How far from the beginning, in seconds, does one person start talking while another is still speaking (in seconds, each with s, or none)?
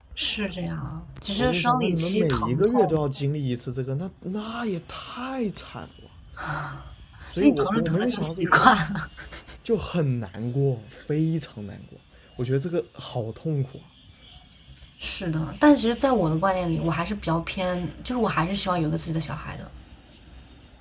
1.4 s